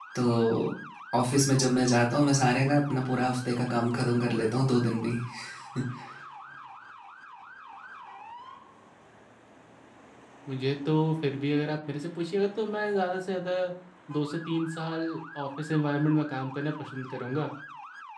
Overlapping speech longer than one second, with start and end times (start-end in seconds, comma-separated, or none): none